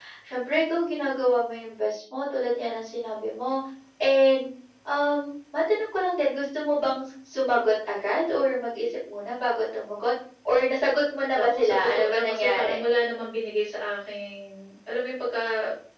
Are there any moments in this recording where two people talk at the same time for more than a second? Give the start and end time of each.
11.3-12.8

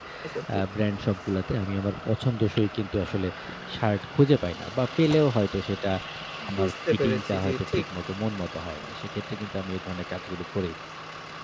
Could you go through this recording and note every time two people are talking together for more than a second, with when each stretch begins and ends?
6.6-7.8

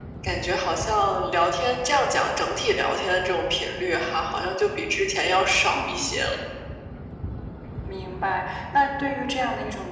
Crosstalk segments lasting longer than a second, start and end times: none

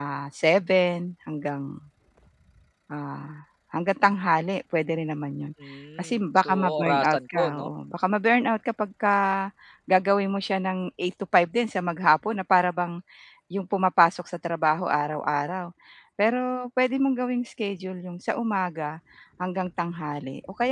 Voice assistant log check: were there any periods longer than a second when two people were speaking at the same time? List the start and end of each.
6.0-7.7

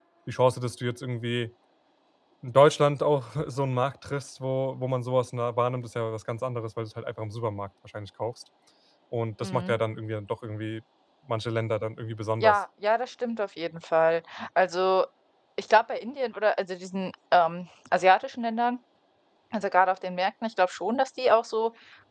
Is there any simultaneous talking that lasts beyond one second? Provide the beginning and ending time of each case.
none

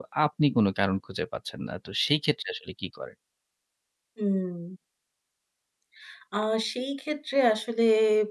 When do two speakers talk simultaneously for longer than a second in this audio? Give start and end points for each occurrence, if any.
none

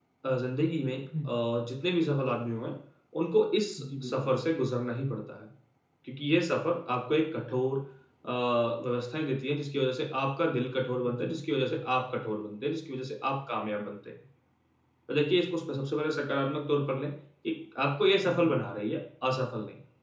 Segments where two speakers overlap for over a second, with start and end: none

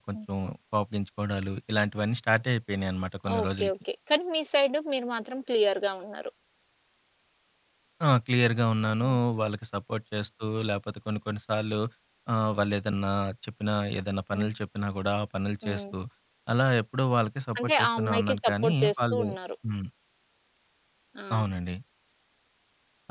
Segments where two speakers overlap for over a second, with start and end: 17.6-19.2

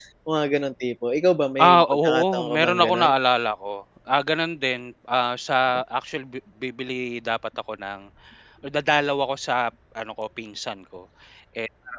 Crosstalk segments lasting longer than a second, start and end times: 1.6-3.1

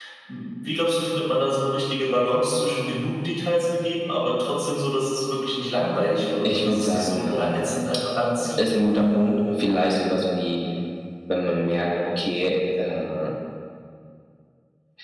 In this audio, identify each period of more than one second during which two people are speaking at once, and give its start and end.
6.4-7.8

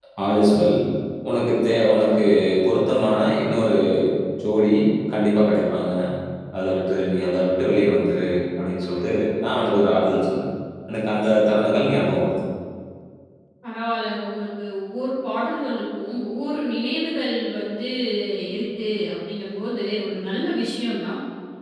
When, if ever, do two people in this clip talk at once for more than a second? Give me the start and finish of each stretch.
none

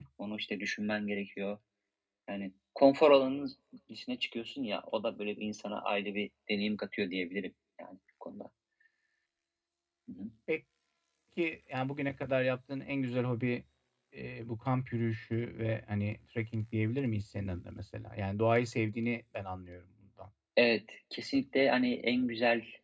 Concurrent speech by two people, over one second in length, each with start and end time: none

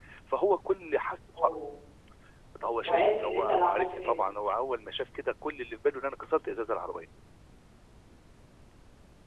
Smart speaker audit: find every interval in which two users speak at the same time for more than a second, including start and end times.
2.8-4.2

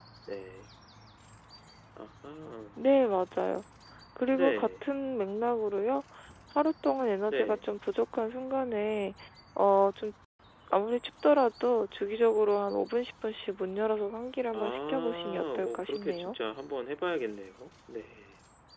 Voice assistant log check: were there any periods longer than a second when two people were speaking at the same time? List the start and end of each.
14.5-16.3

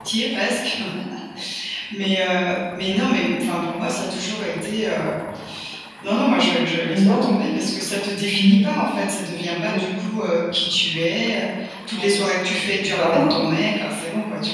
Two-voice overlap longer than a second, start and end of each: 12.0-13.4

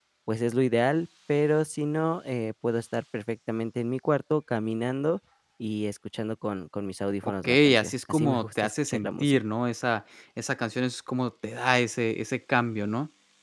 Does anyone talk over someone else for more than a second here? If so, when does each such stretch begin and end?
7.2-9.4

